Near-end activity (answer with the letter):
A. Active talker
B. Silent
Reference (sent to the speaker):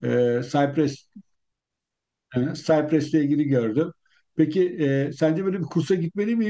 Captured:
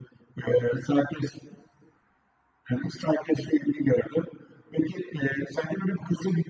B